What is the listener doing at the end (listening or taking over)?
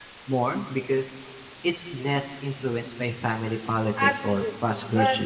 taking over